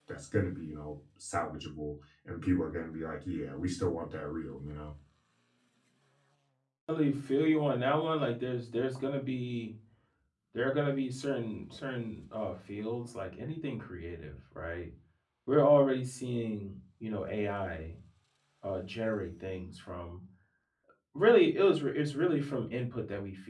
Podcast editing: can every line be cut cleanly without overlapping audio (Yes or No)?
Yes